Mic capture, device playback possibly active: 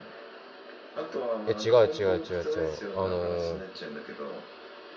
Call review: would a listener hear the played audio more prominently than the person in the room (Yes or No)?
No